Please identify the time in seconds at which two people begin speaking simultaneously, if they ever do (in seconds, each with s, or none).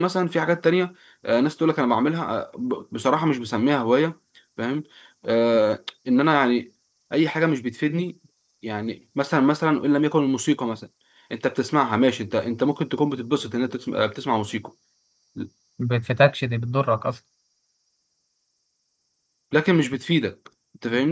none